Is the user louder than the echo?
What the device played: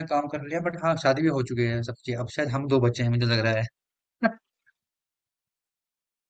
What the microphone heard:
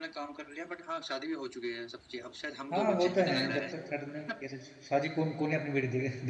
Yes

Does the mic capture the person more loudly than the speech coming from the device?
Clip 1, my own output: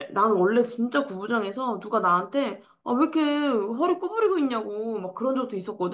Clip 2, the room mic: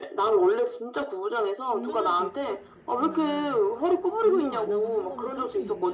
No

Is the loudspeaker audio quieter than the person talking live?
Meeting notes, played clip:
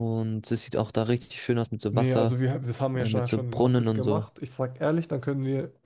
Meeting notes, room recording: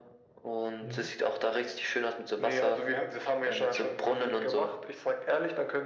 No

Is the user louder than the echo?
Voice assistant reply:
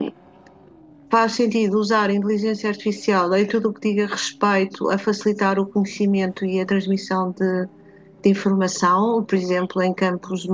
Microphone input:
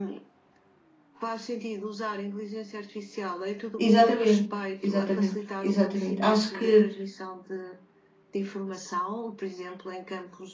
Yes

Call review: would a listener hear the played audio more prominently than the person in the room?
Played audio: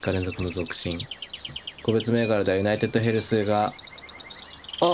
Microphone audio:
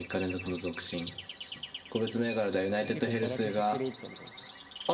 Yes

